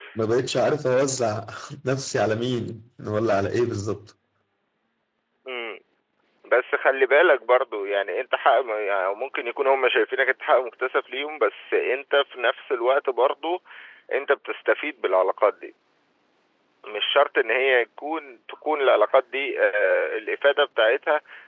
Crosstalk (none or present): none